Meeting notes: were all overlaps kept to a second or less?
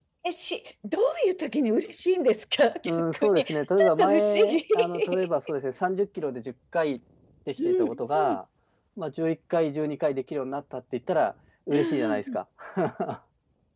No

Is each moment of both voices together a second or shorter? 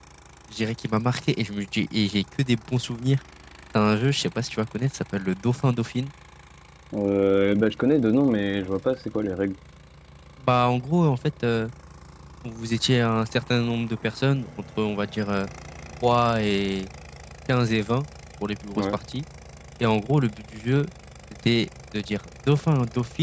Yes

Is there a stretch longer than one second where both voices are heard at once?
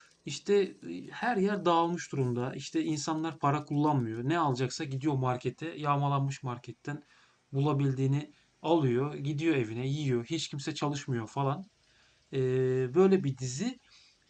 No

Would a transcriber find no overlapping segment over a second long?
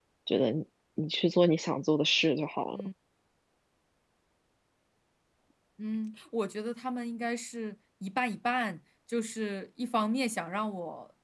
Yes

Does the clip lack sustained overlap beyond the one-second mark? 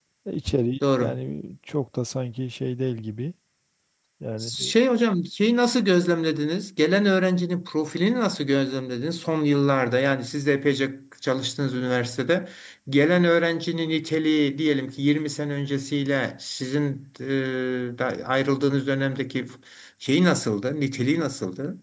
Yes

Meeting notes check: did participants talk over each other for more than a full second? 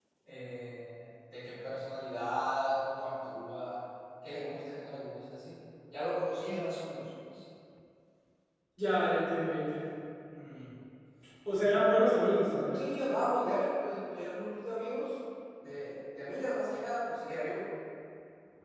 No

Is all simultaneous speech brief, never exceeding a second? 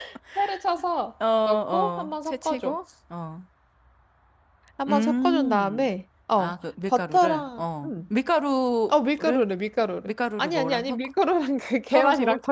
No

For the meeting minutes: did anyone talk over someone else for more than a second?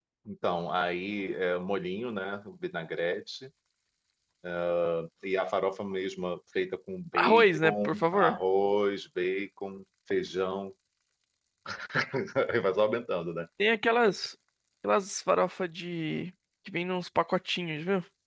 Yes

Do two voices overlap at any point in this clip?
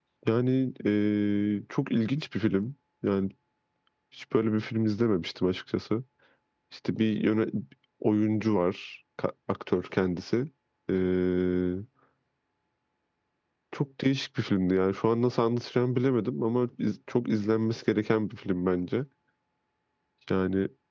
No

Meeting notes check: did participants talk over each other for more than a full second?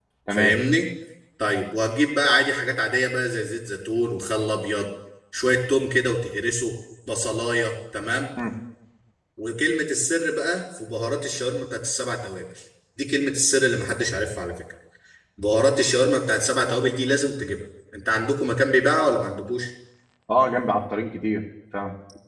No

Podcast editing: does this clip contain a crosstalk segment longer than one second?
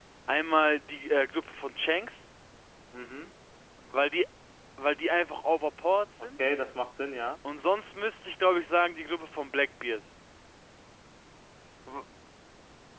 No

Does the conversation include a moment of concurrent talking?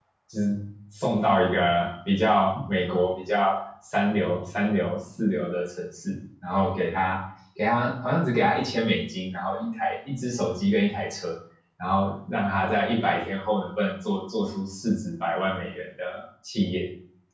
No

